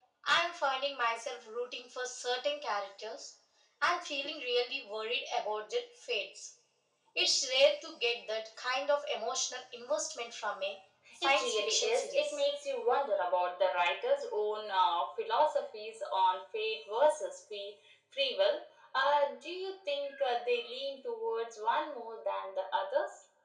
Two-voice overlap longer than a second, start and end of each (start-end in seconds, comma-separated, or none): 11.2-12.4